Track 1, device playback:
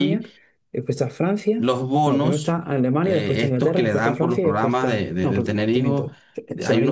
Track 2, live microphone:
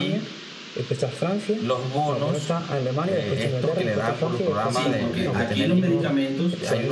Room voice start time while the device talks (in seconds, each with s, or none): 4.7 s